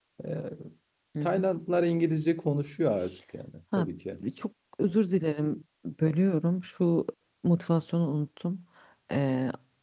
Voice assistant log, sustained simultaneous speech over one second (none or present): none